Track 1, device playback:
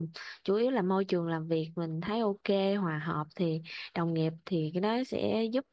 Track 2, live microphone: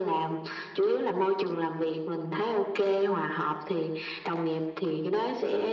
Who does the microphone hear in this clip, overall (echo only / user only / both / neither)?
echo only